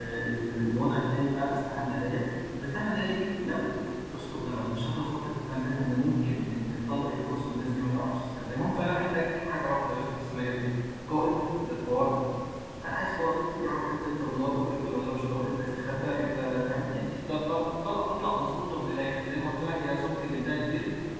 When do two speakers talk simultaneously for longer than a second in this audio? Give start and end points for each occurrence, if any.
none

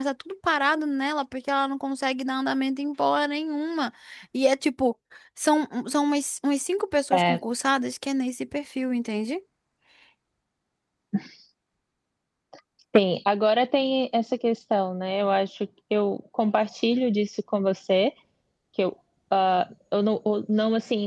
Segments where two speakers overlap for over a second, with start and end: none

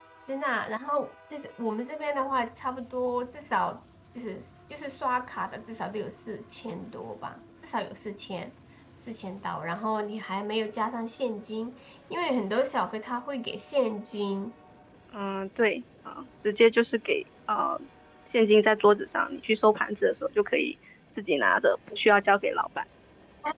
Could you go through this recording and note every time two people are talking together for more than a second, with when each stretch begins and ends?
none

